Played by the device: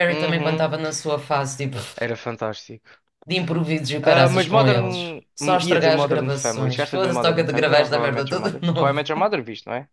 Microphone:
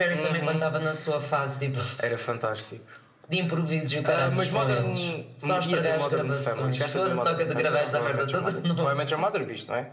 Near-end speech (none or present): none